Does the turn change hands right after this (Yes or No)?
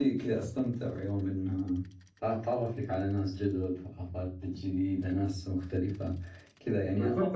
Yes